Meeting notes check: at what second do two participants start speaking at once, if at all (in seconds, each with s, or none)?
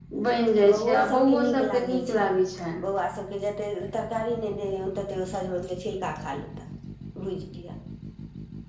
0.7 s